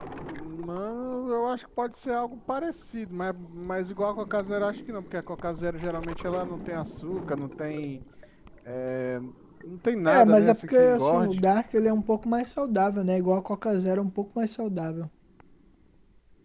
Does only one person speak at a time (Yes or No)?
No